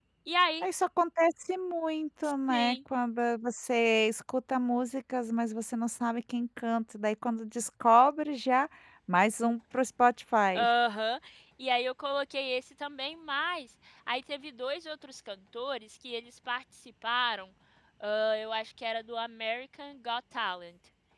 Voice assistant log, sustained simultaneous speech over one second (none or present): none